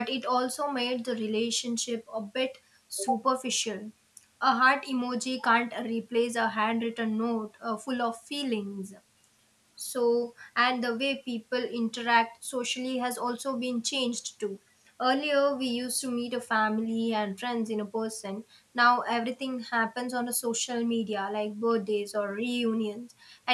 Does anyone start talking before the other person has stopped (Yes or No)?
No